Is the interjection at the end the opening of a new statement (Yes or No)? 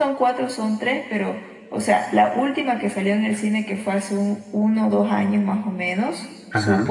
No